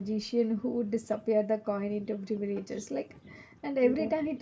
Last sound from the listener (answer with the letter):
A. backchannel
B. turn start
A